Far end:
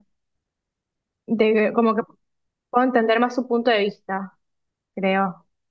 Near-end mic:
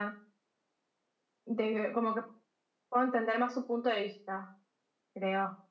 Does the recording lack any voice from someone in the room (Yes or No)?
Yes